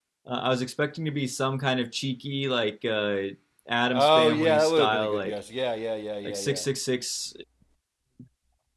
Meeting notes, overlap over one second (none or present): present